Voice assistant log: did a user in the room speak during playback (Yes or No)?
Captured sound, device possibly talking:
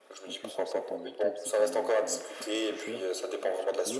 Yes